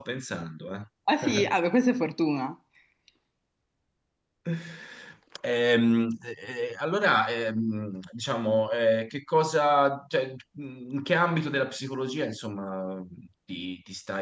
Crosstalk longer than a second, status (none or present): none